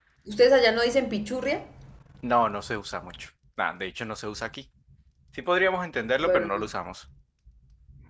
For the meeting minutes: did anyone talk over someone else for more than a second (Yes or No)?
No